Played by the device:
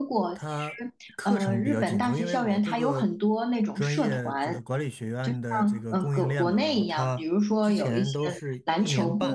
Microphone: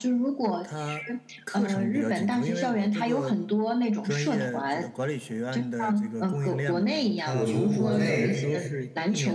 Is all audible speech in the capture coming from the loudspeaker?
No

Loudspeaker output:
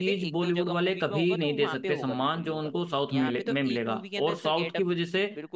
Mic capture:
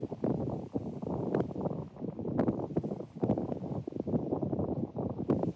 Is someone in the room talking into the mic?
No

